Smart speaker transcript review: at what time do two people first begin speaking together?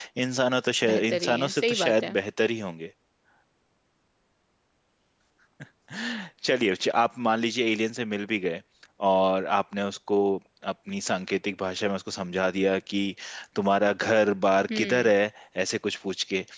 1 s

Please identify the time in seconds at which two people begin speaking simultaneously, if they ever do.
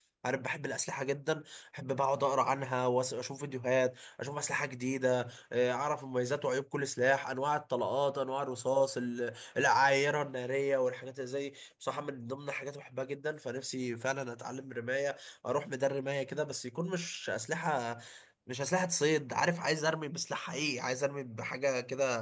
none

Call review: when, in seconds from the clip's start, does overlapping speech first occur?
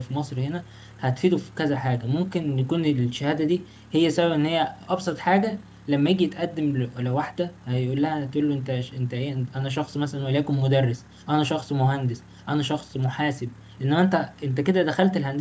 none

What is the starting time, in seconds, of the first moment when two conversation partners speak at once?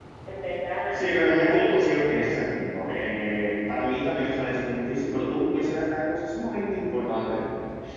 1 s

